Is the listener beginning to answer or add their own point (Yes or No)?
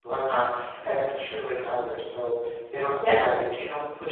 No